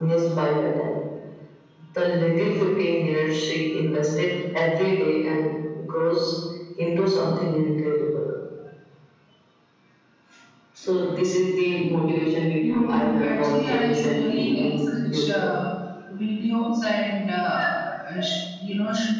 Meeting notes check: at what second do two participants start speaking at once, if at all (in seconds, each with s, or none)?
12.6 s